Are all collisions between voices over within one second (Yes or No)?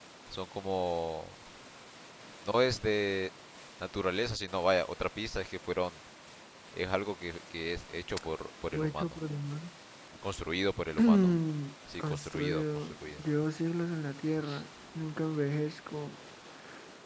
No